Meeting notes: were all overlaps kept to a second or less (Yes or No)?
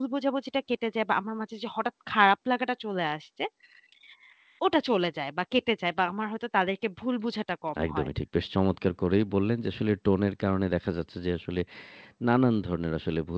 Yes